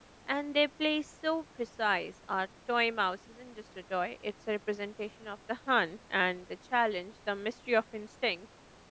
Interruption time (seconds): none

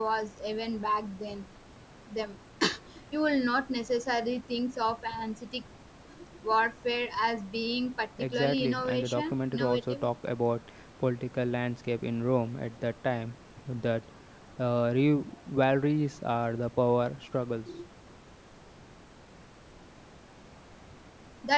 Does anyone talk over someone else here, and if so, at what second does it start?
8.2 s

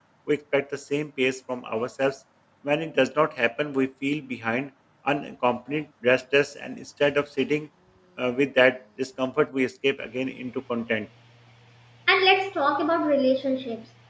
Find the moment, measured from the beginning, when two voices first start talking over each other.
none

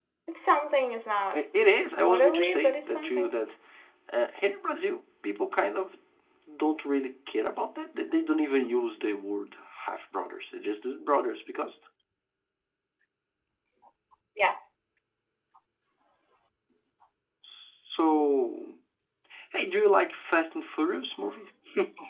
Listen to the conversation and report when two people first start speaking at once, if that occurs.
2.1 s

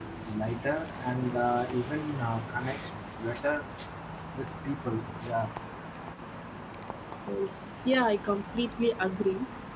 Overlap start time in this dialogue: none

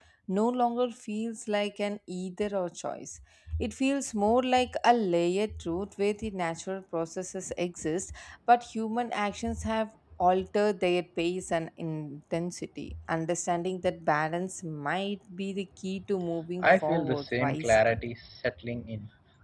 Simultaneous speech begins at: 16.6 s

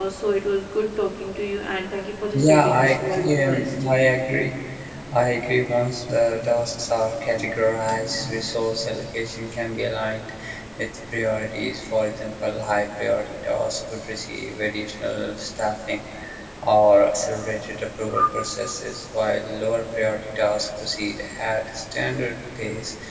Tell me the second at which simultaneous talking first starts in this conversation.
2.3 s

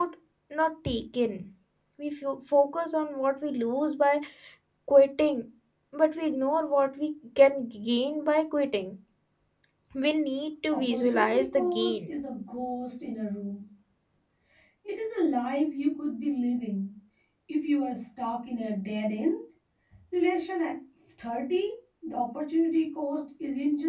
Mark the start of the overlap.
10.7 s

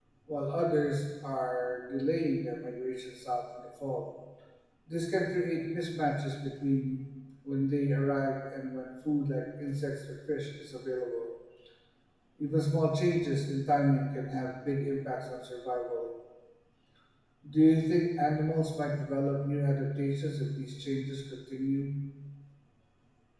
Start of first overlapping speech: none

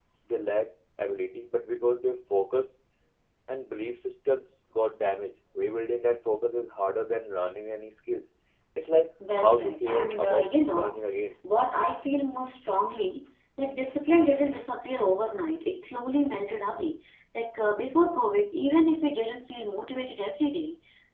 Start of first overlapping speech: 9.4 s

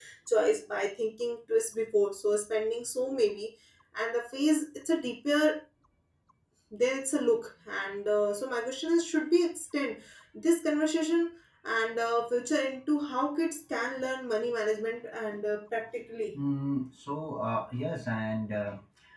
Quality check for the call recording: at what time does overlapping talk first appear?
none

